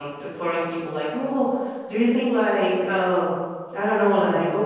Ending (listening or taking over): listening